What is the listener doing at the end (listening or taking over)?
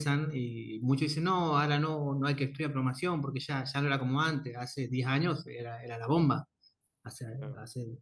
taking over